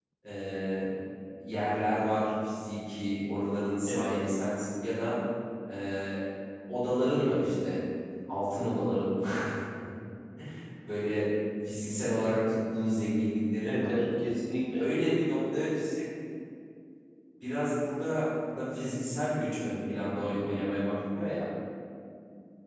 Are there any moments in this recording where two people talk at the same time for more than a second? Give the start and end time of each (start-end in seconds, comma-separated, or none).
none